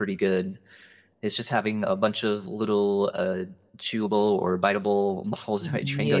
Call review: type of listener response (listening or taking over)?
taking over